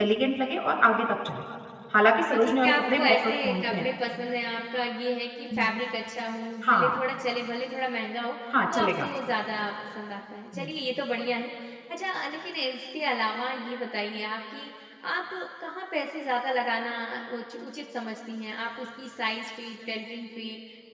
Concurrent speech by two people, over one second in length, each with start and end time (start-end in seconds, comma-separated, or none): 2.3-3.8